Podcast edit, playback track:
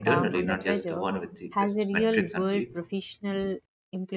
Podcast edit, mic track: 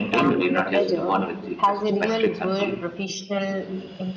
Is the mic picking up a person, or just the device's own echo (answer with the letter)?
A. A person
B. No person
B